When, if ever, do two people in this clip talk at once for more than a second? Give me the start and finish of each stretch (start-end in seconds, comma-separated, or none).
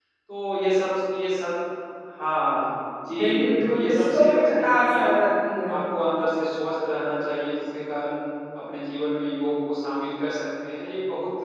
3.2-5.1